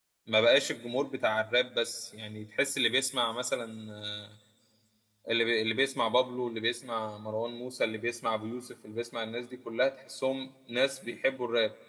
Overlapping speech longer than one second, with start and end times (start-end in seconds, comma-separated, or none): none